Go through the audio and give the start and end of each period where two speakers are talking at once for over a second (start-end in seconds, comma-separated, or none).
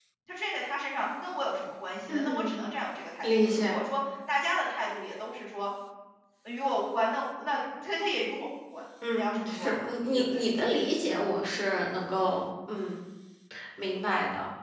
9.2-10.4